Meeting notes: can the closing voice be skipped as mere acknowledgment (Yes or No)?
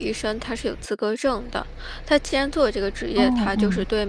Yes